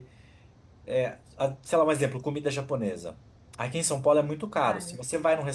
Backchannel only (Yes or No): Yes